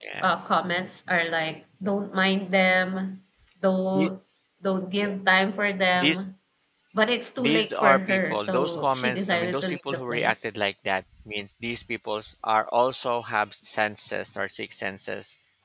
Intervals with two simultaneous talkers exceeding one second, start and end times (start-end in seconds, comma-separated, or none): 7.4-10.3